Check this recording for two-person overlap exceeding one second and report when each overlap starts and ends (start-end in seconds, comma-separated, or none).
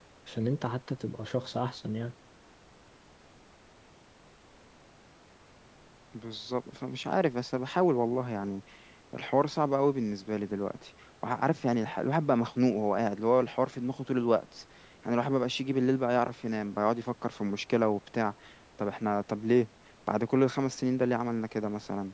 none